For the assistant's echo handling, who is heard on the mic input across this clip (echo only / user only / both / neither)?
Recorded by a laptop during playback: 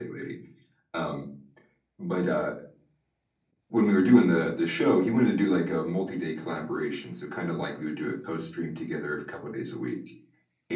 echo only